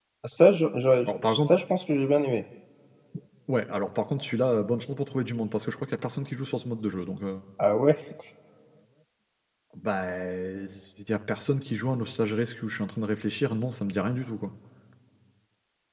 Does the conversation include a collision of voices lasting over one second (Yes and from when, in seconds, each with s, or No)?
No